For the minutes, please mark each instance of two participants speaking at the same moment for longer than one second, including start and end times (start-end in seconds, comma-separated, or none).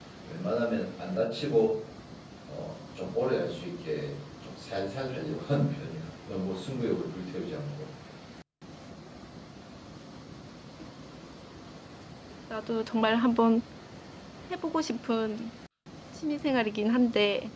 none